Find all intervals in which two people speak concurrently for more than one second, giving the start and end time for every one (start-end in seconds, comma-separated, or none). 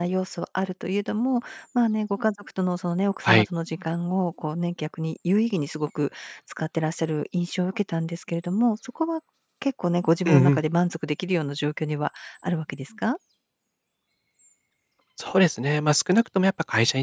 none